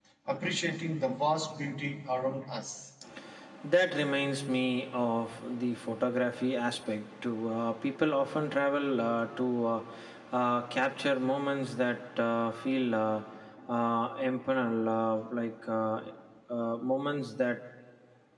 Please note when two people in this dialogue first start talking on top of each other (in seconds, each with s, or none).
none